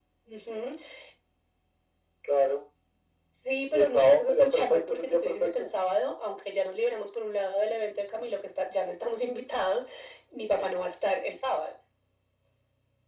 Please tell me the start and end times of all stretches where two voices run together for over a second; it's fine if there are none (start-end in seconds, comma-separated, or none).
3.7-5.7